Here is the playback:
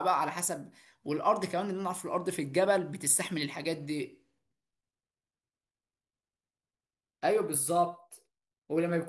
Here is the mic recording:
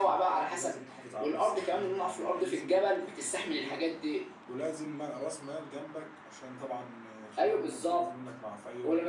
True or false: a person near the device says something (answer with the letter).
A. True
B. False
A